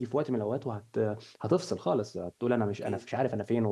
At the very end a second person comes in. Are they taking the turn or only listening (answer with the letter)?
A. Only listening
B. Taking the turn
A